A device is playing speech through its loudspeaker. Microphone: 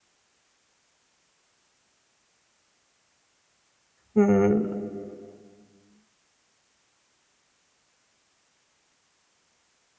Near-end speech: present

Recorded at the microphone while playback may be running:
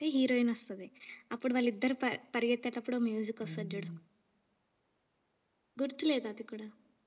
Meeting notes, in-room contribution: present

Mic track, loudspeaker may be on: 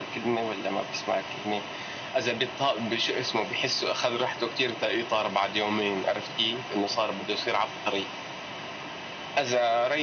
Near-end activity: none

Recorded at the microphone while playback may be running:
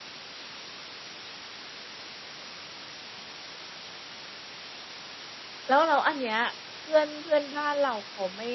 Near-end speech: present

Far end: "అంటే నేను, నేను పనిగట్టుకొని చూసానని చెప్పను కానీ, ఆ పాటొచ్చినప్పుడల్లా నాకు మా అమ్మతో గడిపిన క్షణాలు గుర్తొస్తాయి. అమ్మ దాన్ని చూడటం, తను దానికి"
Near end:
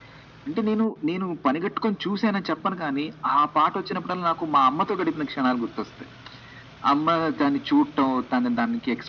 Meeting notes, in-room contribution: none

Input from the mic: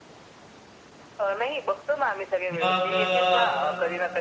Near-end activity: present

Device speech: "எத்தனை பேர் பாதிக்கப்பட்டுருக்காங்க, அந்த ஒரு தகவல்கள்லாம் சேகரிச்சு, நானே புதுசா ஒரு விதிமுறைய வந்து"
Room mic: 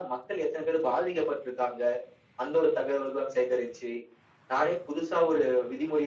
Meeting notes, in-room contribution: none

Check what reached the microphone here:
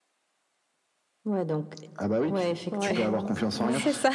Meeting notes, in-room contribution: present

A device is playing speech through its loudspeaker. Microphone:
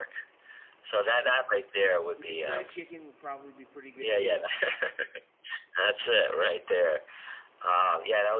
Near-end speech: present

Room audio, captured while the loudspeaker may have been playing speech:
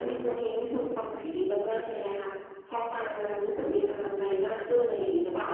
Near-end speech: none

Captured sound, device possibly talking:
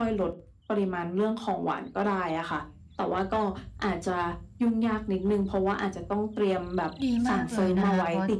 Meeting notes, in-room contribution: present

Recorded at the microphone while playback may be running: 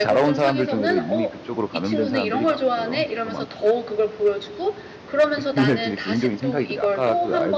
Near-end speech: present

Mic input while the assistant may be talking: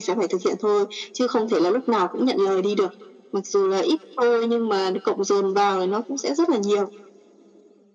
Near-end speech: none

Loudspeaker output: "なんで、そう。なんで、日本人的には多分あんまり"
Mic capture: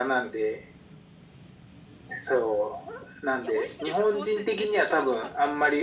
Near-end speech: present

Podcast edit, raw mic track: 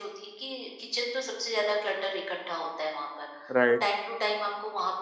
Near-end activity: present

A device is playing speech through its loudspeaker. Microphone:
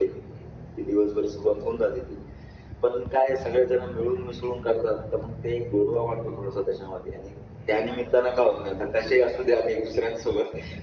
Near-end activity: none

